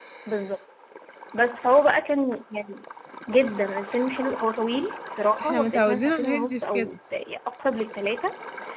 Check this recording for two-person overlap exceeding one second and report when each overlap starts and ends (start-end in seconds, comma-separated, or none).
5.4-6.9